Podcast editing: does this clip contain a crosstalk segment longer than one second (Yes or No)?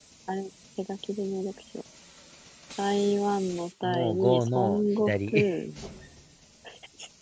Yes